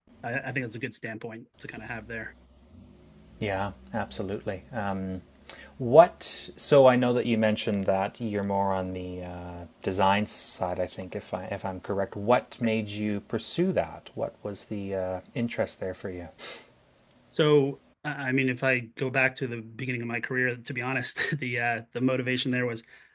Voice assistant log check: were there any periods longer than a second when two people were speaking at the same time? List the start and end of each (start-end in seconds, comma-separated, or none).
none